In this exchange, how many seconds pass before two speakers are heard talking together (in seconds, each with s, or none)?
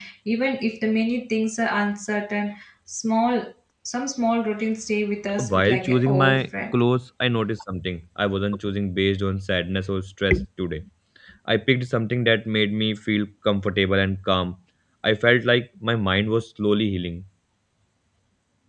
5.4 s